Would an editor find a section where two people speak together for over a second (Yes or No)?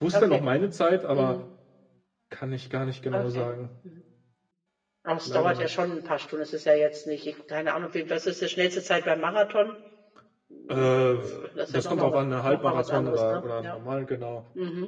Yes